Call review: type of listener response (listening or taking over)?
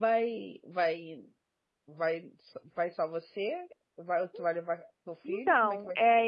taking over